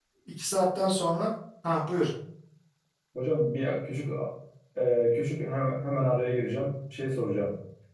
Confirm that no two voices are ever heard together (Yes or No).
Yes